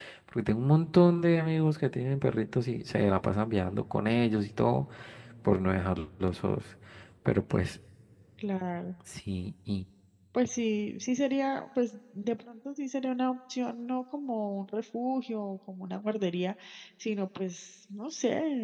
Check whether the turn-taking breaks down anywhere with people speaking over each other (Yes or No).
No